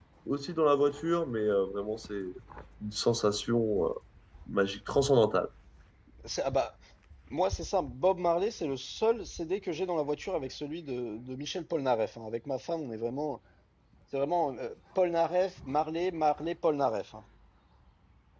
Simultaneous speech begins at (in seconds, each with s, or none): none